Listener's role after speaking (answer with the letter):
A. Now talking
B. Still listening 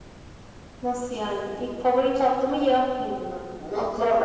A